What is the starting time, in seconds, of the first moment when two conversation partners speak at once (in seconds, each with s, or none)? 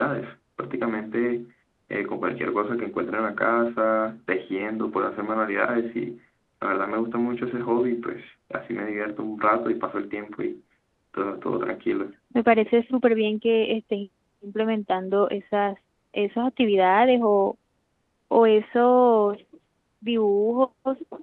none